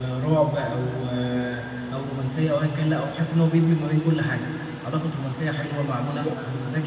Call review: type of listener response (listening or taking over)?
listening